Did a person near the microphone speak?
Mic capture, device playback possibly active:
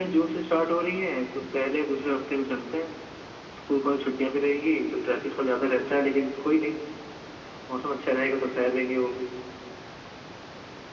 No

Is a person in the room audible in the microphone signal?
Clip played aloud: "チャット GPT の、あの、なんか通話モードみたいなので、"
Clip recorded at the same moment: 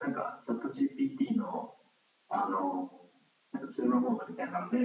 No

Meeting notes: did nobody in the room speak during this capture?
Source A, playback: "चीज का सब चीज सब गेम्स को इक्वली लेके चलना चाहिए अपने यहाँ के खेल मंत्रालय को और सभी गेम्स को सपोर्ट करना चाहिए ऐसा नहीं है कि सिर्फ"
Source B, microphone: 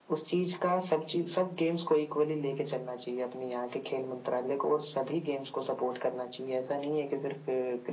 Yes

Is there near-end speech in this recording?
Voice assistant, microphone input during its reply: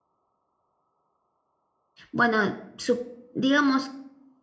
Yes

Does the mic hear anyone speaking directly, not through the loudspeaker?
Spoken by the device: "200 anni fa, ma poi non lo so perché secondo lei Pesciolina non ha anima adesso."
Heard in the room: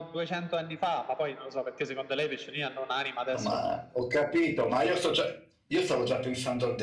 Yes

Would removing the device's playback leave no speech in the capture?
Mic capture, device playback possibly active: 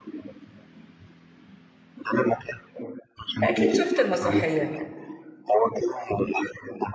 No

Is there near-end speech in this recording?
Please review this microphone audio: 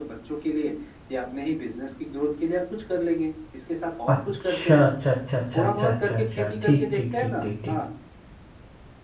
Yes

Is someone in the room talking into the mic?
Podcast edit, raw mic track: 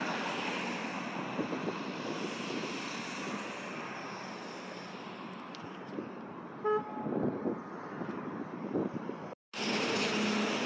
No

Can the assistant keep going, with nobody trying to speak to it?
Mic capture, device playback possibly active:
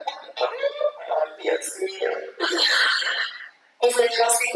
Yes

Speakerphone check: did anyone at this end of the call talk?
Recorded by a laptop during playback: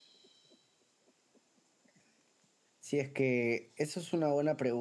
Yes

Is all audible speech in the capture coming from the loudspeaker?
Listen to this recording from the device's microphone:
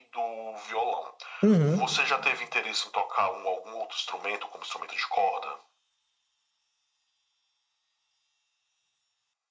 No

